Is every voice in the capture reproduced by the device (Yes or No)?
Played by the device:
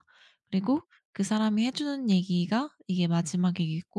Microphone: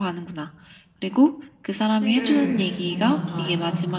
No